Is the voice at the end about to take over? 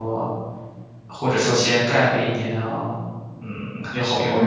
Yes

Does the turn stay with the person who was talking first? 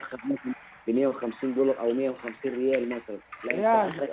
Yes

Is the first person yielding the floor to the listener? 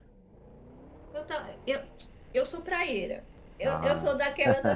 No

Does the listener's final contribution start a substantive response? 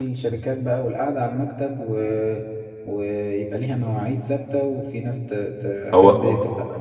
No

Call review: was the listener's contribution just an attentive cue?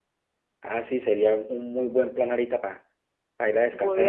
No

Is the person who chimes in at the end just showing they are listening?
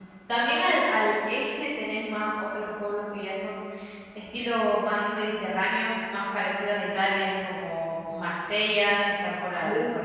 Yes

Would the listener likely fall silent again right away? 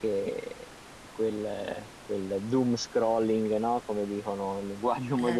Yes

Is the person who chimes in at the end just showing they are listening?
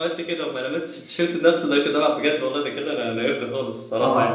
No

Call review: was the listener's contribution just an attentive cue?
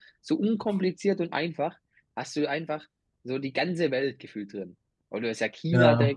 Yes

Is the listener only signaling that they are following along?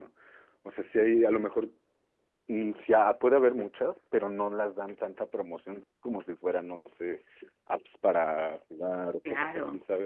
Yes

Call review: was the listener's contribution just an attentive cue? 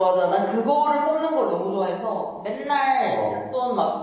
Yes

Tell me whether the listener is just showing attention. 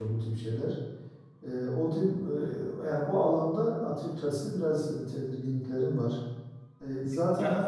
Yes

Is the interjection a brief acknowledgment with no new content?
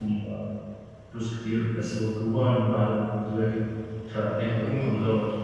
Yes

